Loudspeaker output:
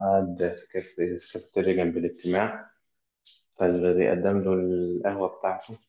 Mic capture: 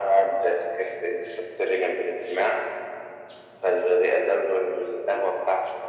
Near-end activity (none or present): none